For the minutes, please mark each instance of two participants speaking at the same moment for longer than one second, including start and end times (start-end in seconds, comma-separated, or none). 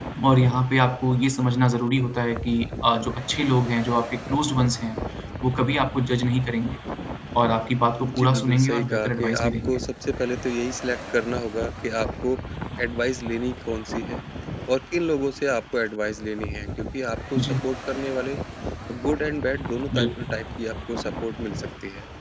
8.0-9.8